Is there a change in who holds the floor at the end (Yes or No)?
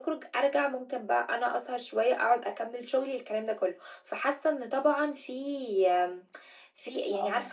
Yes